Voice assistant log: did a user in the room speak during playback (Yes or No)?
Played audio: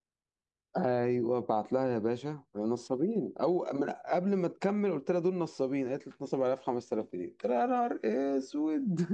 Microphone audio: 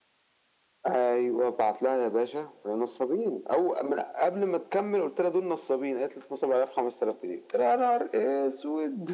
No